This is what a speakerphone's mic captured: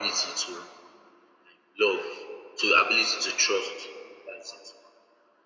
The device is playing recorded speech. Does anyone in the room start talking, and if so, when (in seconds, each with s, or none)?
none